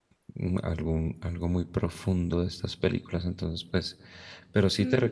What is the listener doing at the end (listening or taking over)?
taking over